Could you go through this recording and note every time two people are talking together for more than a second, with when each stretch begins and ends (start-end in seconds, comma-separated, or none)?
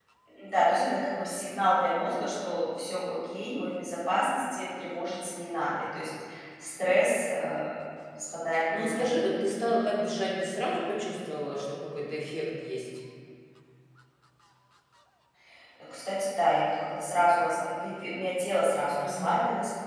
none